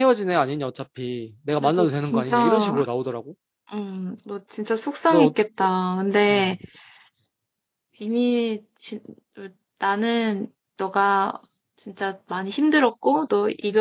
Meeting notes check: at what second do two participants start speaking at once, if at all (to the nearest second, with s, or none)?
2 s